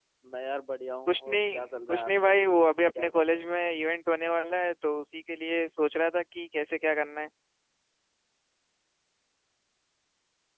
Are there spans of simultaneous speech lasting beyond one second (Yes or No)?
Yes